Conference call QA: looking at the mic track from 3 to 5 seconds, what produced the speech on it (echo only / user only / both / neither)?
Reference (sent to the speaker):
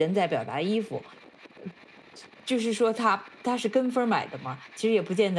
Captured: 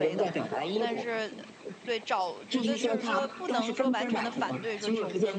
both